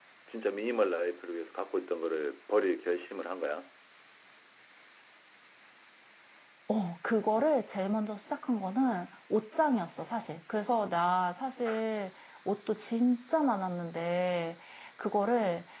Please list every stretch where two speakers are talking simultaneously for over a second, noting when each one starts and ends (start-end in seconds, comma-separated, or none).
none